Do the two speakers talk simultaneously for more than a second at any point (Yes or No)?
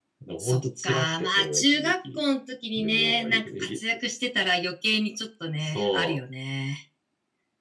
Yes